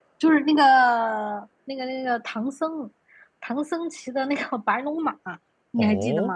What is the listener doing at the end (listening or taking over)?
taking over